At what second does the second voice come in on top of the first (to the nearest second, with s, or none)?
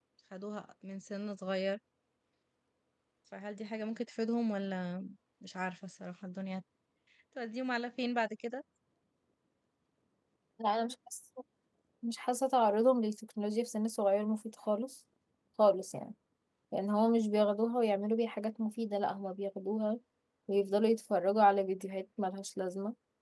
none